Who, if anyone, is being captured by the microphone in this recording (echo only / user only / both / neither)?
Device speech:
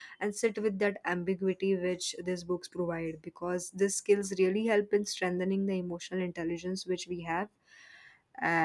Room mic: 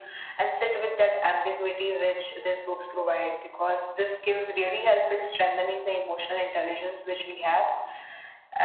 echo only